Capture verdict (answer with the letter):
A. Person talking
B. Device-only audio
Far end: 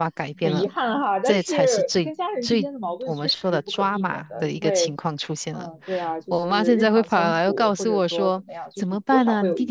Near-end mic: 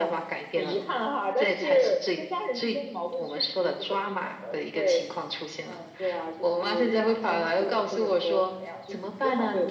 B